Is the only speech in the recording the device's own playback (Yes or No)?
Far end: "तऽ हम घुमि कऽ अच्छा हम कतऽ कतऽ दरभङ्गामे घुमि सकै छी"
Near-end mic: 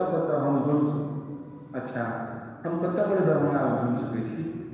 Yes